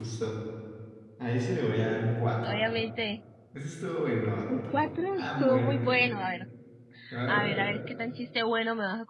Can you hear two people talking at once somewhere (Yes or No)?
Yes